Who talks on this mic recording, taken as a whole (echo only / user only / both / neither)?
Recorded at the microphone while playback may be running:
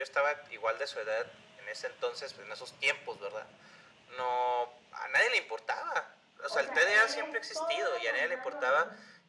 both